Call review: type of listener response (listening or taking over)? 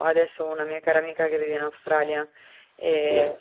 listening